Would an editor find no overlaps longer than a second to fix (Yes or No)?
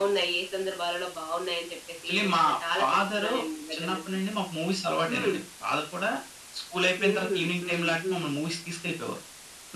No